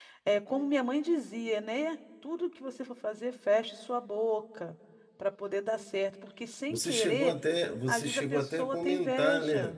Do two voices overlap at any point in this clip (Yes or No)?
Yes